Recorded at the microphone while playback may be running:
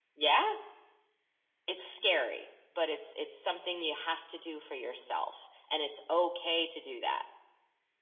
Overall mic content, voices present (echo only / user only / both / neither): echo only